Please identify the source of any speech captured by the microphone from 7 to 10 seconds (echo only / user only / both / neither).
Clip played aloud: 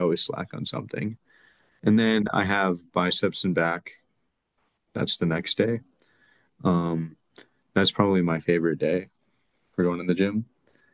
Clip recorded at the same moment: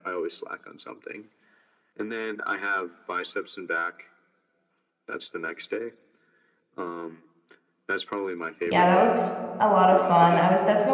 both